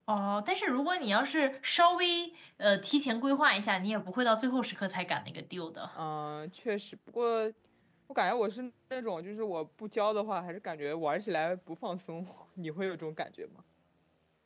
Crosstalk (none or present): none